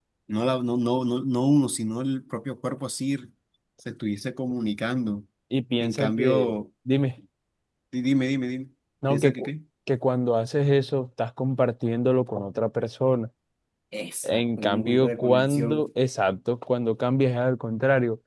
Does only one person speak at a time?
No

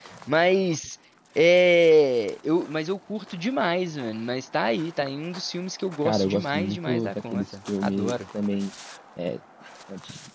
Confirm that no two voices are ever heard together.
No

